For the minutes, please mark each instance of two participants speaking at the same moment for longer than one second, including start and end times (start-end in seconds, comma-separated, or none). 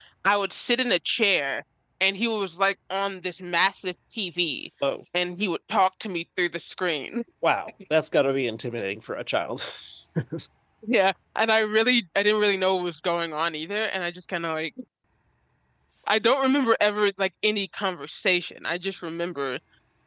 none